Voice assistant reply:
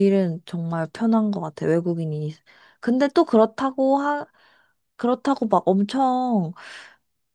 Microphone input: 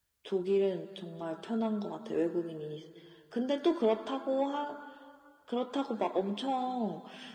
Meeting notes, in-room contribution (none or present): none